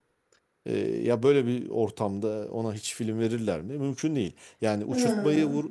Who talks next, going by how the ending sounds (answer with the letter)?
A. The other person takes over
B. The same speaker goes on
B